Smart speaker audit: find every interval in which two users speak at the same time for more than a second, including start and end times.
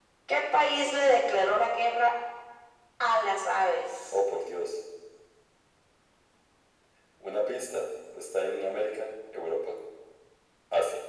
none

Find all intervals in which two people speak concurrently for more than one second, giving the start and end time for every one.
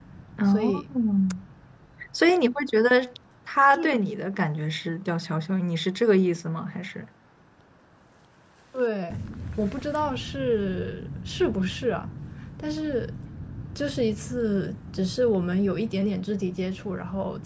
none

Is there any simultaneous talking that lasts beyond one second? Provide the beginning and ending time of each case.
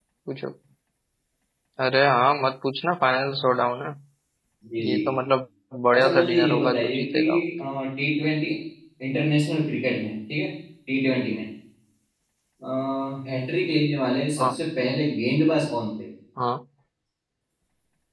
5.9-7.2

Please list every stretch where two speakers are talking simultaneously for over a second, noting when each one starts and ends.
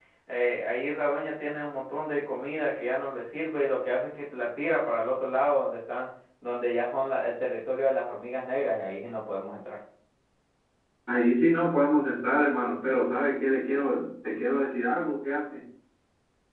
none

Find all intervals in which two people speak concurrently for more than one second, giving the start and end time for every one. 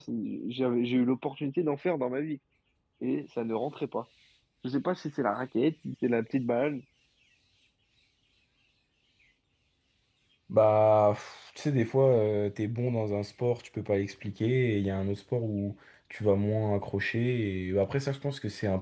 none

